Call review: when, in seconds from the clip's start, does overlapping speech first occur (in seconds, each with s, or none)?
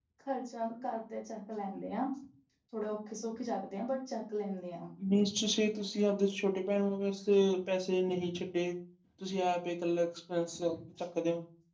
none